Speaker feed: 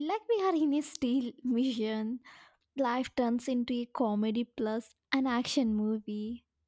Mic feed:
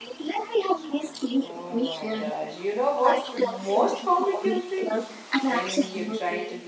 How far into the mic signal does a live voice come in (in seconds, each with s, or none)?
1.4 s